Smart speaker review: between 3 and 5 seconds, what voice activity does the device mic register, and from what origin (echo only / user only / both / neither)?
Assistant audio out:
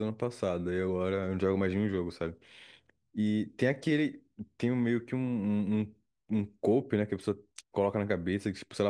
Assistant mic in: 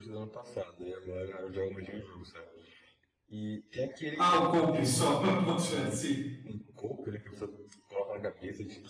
both